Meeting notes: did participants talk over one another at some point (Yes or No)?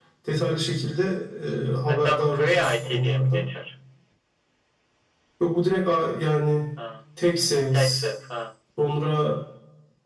Yes